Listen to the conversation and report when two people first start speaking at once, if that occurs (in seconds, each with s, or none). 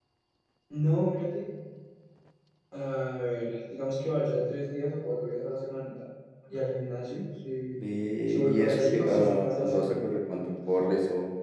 8.3 s